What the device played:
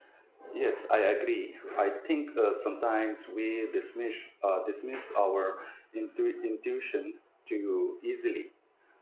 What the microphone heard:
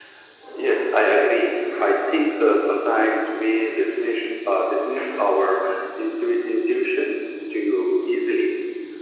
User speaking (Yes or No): No